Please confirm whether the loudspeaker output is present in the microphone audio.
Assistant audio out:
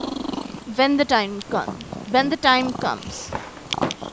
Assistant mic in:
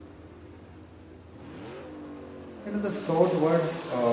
No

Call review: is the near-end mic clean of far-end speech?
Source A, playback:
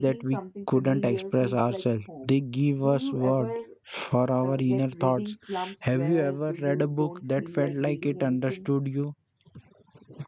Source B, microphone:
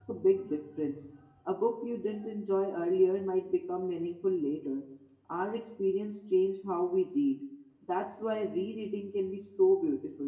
Yes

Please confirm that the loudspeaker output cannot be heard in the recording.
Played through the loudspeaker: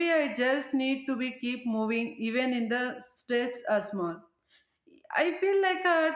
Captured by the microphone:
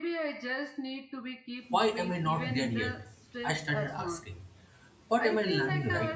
No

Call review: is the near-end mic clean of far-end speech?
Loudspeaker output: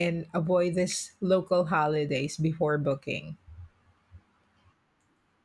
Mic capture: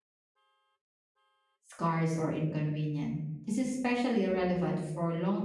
Yes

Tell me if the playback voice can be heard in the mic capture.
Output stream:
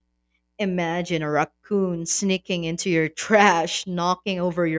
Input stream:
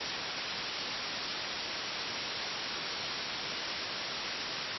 No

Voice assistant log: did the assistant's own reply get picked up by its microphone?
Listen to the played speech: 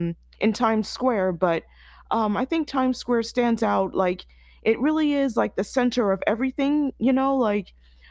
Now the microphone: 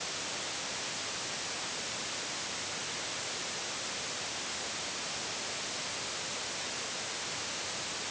No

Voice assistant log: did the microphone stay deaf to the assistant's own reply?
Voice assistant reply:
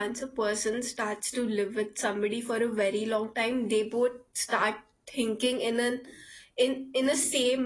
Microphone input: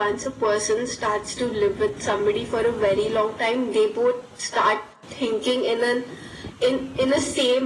No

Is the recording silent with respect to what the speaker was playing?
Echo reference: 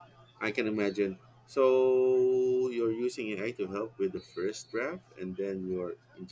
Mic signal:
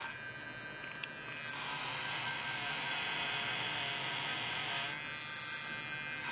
Yes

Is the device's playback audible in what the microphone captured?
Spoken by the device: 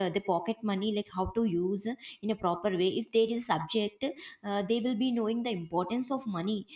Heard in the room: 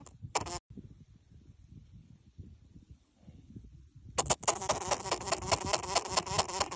No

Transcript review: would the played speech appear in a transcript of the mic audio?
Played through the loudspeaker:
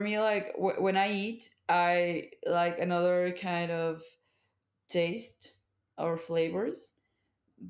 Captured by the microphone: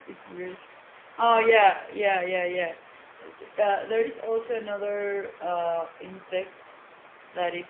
No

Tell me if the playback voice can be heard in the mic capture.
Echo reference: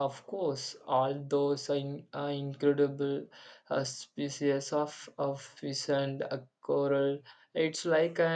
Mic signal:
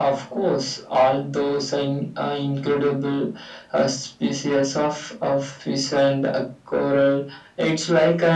Yes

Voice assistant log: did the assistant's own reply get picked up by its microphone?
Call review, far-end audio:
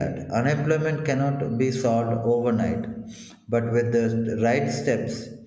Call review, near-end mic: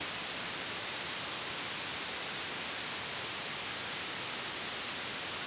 No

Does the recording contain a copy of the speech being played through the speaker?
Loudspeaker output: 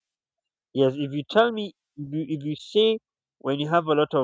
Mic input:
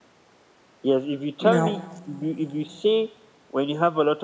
Yes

